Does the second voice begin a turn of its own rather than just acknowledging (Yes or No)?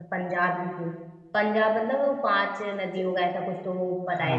Yes